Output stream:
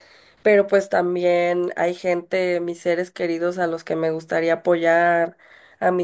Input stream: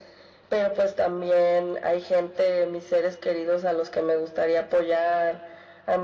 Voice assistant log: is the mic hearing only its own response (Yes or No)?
Yes